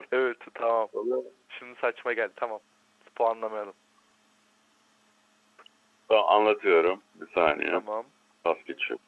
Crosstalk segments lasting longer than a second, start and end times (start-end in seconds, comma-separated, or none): none